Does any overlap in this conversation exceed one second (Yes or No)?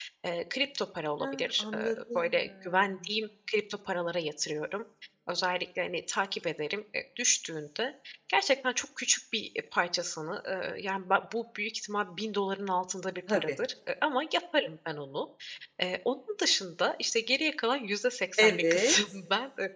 Yes